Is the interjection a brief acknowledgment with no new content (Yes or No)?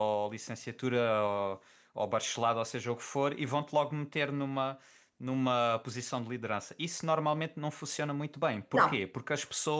Yes